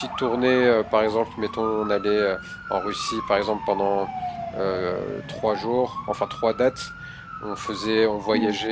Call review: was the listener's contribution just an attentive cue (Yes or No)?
Yes